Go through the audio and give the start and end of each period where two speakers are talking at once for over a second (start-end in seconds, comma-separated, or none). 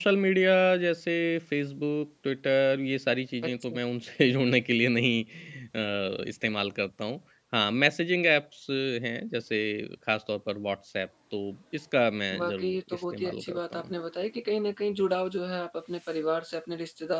12.3-13.9